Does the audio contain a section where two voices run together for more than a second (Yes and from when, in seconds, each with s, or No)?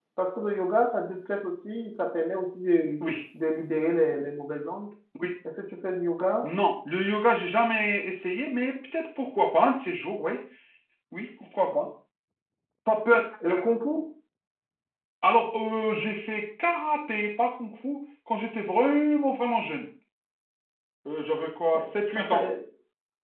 No